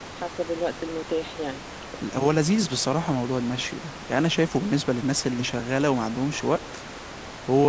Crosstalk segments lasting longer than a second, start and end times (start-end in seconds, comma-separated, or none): none